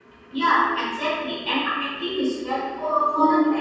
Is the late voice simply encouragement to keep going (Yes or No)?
Yes